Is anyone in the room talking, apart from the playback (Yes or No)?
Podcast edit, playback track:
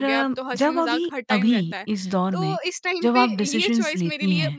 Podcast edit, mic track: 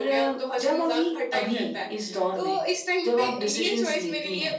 No